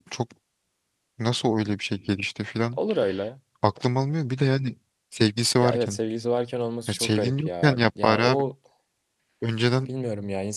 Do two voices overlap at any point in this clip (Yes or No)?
Yes